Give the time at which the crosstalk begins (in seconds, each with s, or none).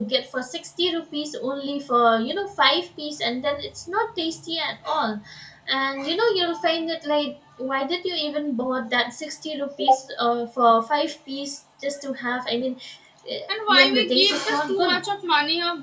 13.7 s